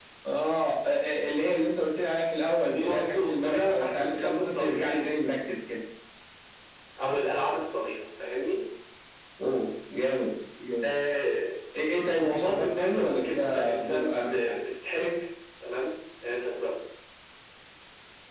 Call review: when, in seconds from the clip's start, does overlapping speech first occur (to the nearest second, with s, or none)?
3 s